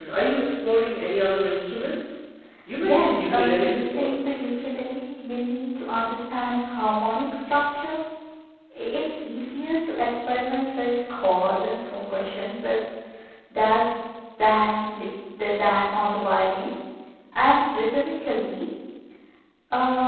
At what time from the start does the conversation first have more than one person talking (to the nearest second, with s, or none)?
3 s